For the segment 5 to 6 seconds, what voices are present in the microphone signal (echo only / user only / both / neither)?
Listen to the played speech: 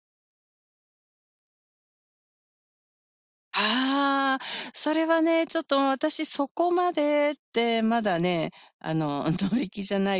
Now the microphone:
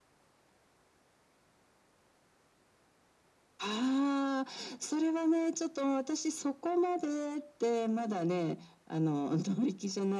echo only